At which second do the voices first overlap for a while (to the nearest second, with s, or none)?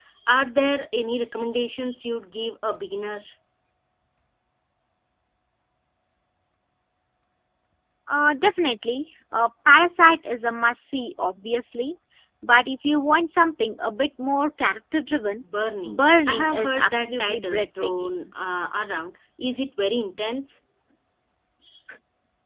16 s